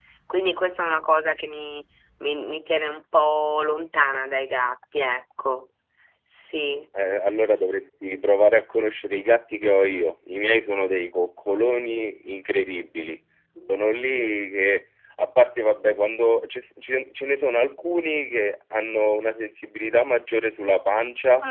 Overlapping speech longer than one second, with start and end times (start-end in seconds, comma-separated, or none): none